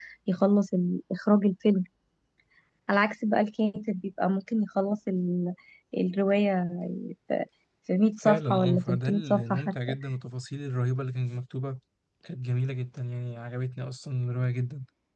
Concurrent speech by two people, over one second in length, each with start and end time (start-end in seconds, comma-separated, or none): 8.2-9.9